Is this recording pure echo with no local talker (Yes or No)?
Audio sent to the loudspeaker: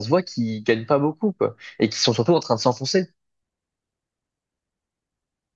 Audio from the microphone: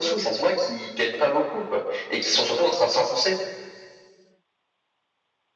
Yes